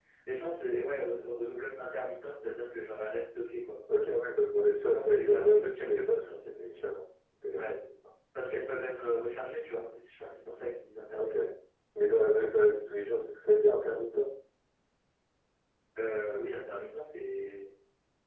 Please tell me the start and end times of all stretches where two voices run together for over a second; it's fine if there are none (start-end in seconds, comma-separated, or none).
4.7-6.2